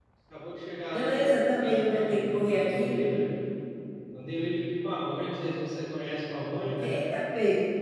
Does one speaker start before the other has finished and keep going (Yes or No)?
Yes